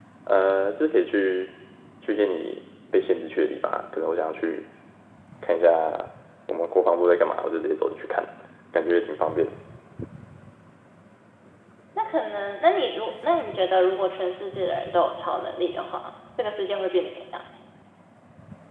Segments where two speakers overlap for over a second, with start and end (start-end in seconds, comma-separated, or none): none